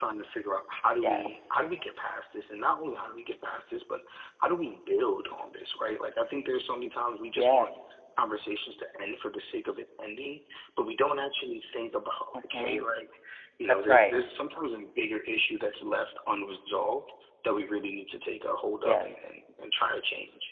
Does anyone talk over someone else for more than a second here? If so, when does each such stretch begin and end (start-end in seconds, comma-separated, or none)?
none